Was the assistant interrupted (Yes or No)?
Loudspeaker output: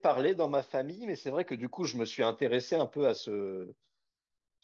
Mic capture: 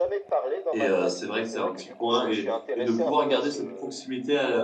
Yes